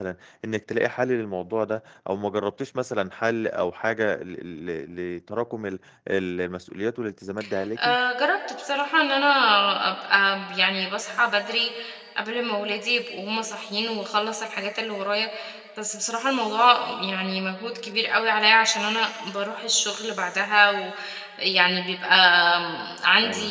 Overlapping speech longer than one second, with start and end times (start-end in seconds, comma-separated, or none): none